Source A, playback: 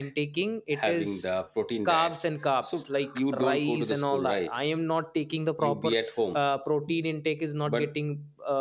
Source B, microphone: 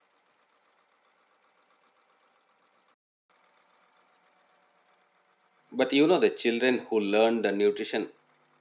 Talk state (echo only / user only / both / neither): user only